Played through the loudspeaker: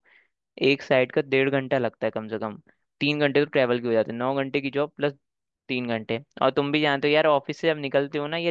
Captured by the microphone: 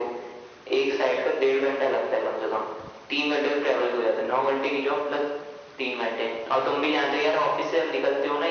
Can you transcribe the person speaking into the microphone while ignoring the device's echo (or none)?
none